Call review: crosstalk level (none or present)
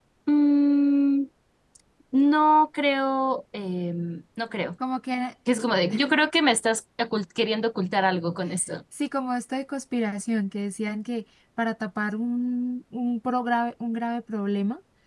none